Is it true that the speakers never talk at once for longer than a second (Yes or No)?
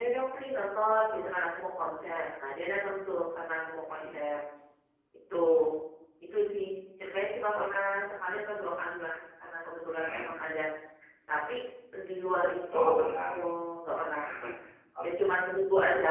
Yes